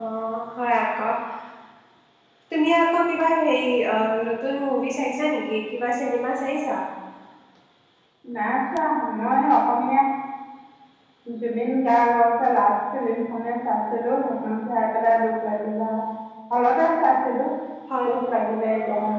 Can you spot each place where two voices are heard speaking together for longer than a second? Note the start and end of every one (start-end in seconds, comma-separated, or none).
none